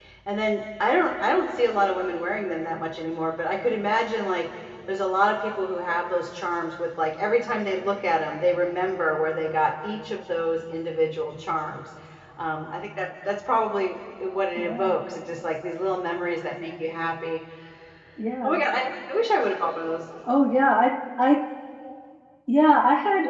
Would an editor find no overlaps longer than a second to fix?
Yes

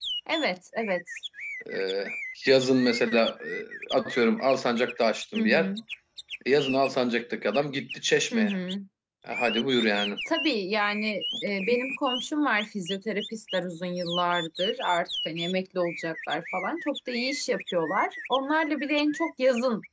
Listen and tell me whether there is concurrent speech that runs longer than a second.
No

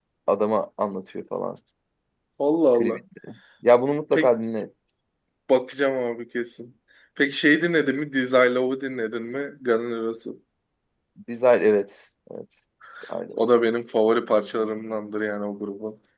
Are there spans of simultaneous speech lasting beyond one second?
No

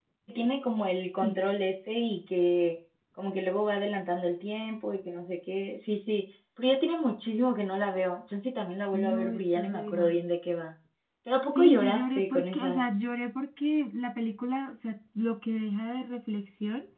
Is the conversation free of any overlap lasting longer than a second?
No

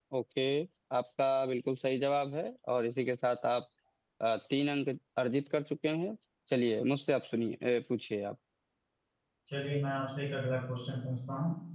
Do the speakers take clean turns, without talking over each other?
Yes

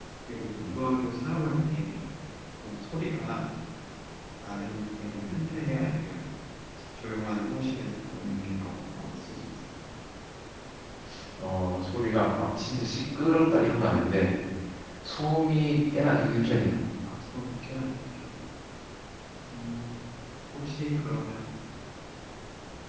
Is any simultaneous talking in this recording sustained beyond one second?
No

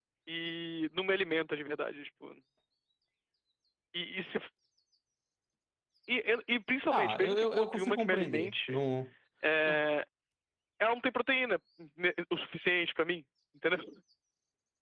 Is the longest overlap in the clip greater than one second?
Yes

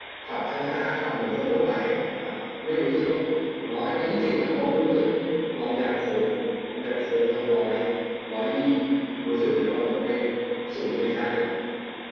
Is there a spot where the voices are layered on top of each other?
No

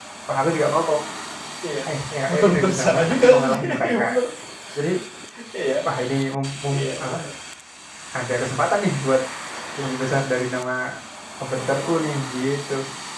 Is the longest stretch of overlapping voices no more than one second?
No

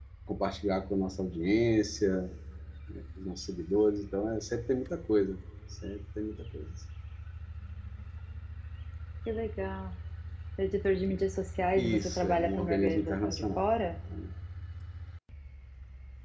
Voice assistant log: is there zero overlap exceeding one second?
No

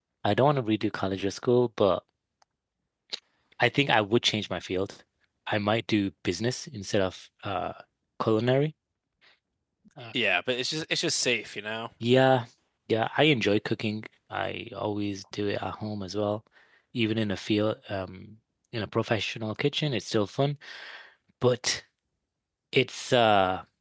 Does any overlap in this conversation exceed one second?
No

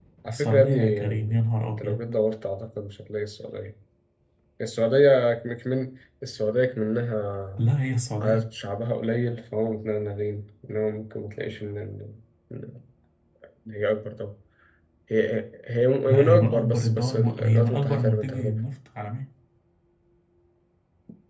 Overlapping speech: Yes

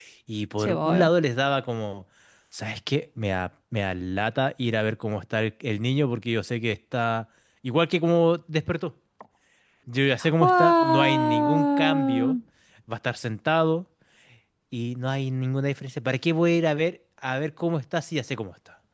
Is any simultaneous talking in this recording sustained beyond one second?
Yes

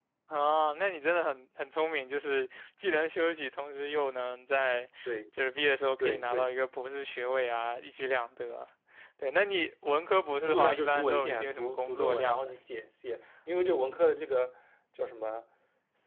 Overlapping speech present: Yes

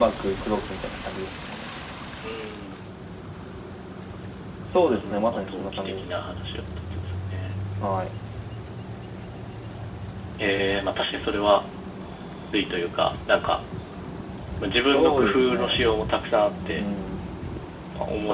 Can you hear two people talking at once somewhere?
Yes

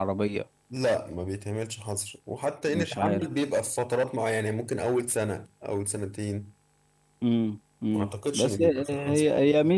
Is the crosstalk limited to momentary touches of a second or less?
No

